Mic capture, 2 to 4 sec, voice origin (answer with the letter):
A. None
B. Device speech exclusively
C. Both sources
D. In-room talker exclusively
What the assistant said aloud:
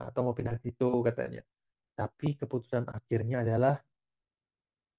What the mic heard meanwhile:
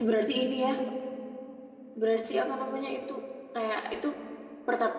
D